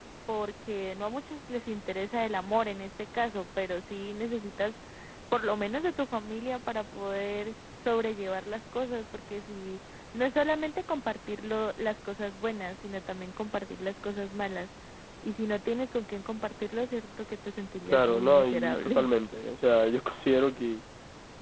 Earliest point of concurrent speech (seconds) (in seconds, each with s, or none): 17.9 s